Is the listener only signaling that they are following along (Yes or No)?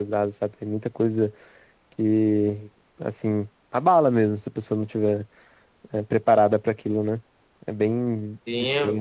No